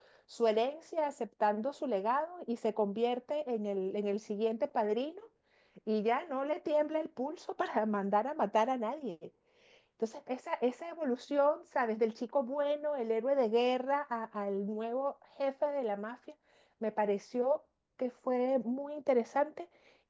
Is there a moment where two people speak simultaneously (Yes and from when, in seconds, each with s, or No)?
No